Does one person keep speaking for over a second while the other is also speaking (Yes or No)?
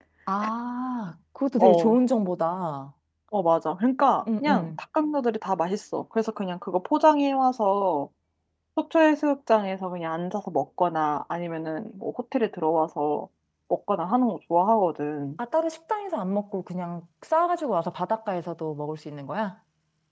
No